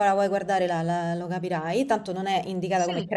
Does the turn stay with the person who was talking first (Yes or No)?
Yes